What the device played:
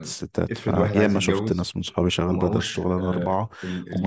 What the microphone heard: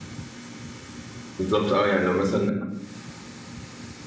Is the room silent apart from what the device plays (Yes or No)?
No